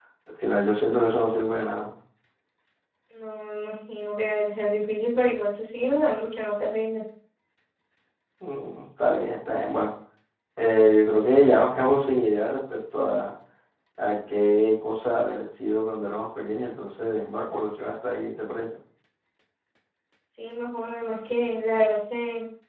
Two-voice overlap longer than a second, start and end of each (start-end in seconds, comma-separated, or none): none